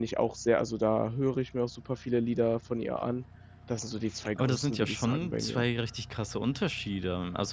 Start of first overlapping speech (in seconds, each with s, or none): 4.4 s